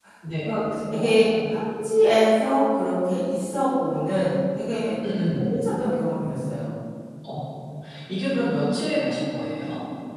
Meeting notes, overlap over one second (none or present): none